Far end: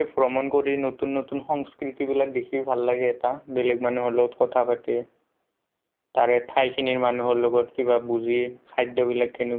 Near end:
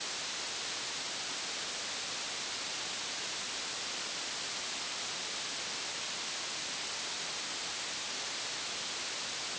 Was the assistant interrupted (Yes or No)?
No